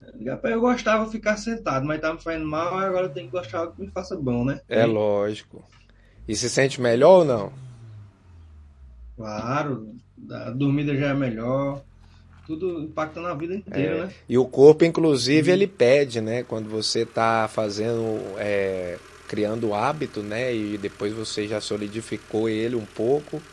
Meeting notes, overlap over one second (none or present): none